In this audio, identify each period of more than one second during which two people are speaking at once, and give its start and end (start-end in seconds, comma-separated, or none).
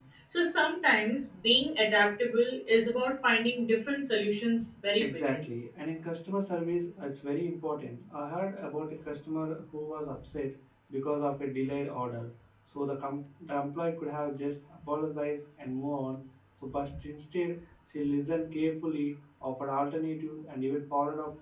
none